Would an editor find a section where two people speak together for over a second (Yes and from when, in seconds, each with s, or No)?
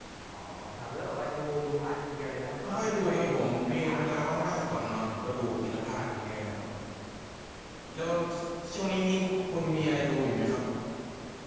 Yes, from 2.6 s